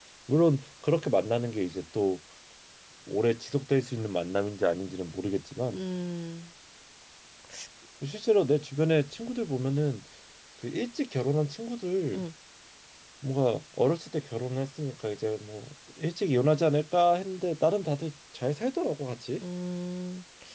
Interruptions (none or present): none